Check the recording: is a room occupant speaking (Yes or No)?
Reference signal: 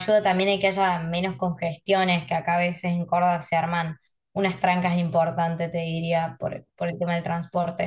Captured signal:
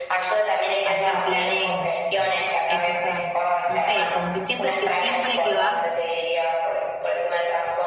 Yes